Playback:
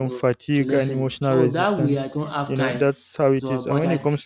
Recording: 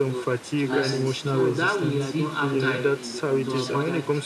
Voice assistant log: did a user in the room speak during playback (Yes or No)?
Yes